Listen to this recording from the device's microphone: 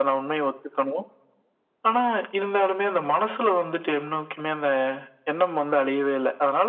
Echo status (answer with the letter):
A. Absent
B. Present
B